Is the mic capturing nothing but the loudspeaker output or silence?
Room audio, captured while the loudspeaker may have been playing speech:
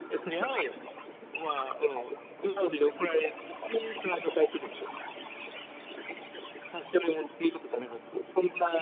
Yes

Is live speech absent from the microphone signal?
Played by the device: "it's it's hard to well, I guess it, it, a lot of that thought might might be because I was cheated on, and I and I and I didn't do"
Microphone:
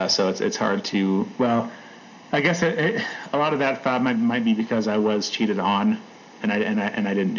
Yes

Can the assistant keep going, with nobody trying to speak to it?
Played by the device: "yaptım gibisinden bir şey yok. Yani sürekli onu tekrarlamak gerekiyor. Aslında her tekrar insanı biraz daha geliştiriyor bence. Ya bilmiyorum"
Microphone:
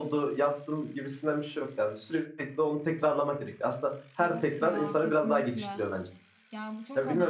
No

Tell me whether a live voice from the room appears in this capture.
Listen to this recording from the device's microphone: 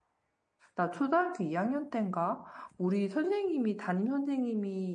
Yes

